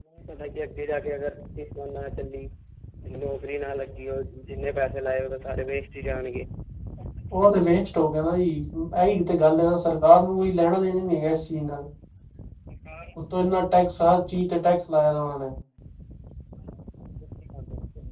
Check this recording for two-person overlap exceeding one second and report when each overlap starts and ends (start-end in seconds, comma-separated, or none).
none